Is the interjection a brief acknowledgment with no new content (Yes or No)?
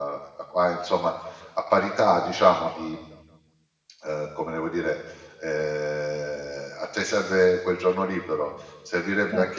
Yes